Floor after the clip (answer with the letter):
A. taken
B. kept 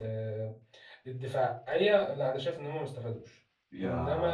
A